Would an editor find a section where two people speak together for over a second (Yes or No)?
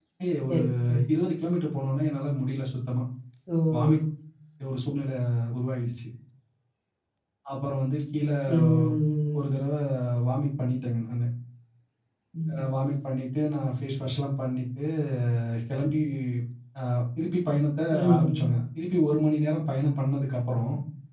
No